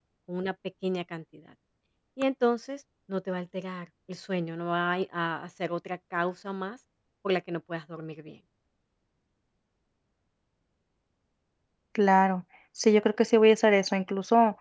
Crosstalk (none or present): none